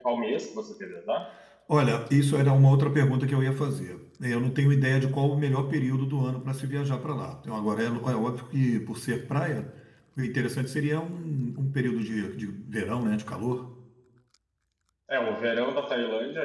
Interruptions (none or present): none